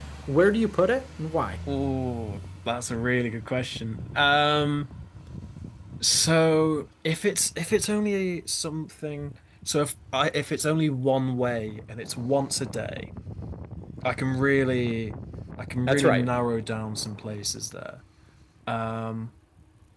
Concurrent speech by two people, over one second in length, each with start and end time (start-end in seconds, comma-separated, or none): none